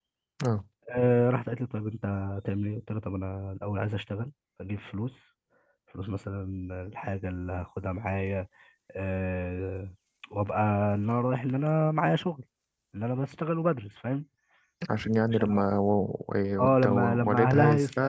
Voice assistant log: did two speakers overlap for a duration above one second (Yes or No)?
Yes